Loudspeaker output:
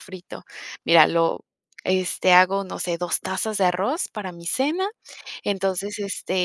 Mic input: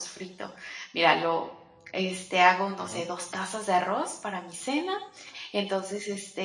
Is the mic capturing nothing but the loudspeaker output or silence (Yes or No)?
No